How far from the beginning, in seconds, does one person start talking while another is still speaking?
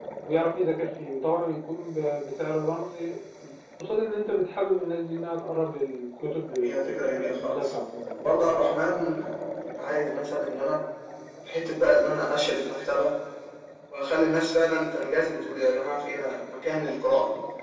6.4 s

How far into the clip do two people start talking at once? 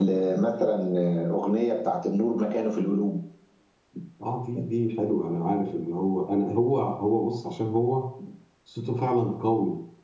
none

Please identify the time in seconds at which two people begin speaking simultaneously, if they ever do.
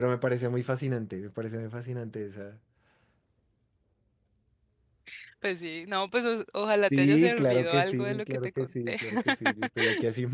6.9 s

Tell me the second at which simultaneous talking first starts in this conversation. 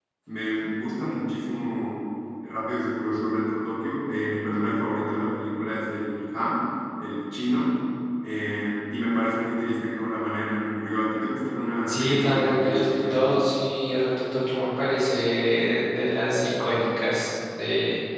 11.9 s

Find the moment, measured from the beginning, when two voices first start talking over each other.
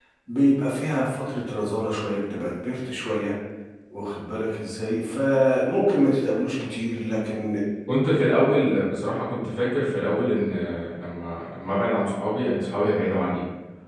none

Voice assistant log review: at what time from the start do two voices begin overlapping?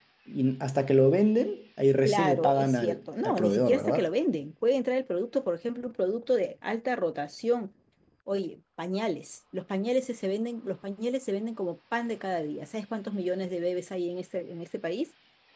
2.0 s

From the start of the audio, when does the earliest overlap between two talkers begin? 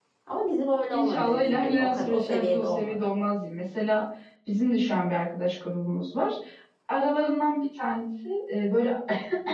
0.9 s

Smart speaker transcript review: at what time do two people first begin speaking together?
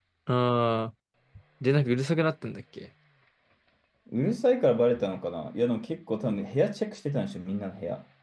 none

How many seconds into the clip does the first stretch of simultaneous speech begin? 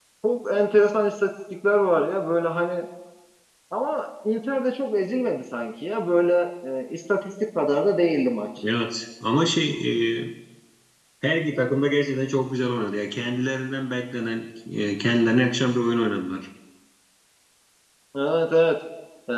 none

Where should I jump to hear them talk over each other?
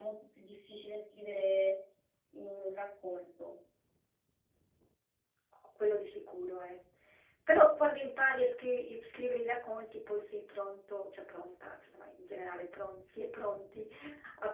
none

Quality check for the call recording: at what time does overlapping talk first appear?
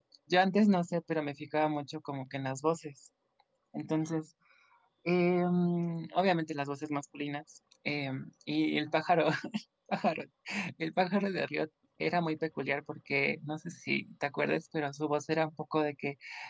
none

